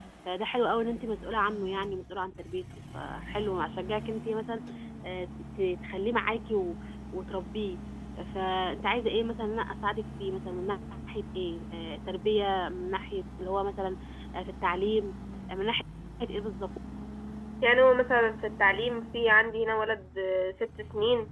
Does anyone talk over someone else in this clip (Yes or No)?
No